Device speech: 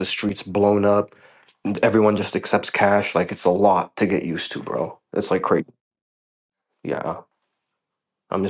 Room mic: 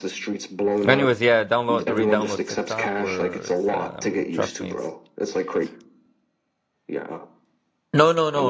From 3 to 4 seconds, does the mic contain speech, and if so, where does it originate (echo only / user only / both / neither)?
both